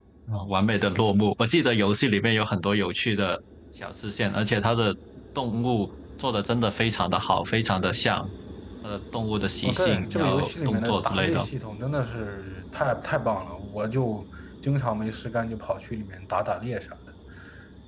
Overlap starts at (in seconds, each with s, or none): 9.6 s